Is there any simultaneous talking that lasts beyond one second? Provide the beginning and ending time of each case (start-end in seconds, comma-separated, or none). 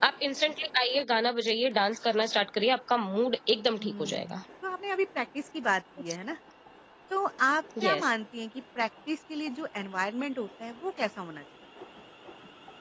none